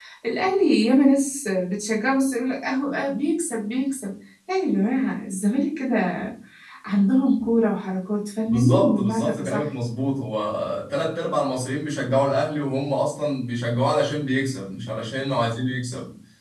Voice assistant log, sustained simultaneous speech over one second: present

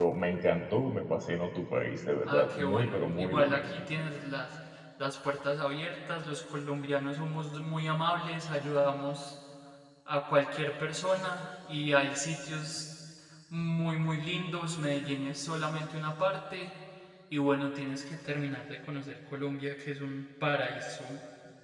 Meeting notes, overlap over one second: present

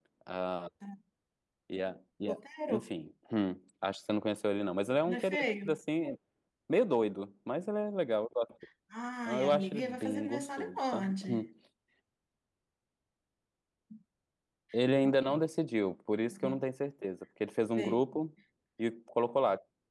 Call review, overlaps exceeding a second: present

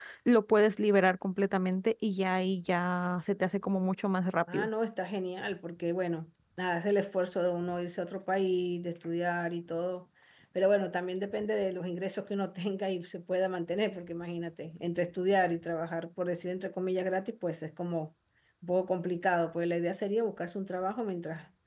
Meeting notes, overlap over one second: none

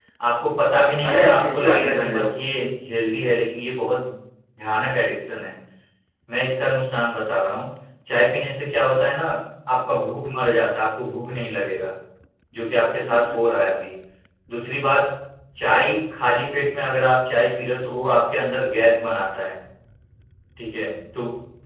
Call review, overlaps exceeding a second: present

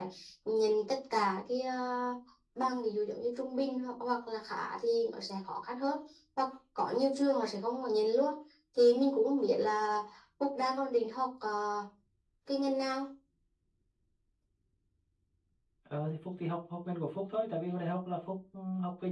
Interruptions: none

